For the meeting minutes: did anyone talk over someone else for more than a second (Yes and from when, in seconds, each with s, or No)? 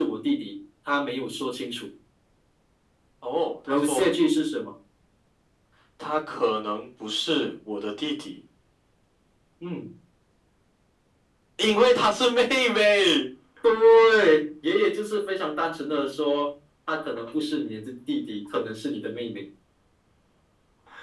No